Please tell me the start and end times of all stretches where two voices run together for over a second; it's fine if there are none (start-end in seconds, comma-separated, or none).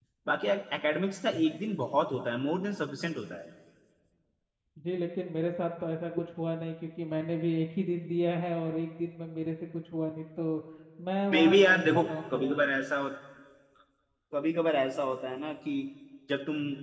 11.3-12.5